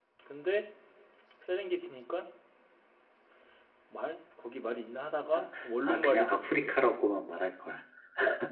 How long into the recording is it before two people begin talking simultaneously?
5.3 s

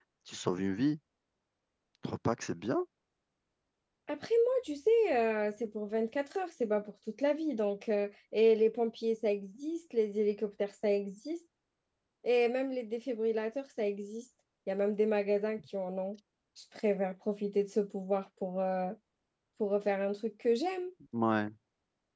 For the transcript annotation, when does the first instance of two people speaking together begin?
none

